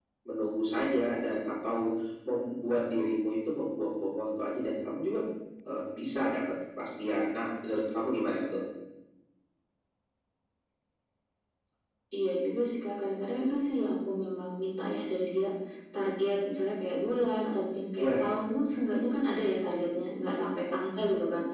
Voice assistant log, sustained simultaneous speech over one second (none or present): none